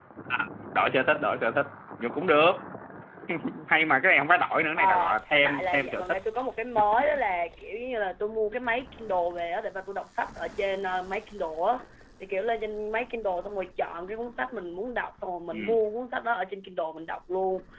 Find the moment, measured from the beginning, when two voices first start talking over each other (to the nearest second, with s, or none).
5 s